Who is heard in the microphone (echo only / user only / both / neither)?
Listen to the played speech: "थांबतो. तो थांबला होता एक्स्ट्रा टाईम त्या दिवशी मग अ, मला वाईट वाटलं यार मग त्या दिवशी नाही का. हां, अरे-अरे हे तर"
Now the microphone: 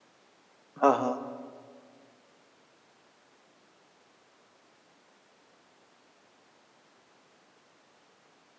user only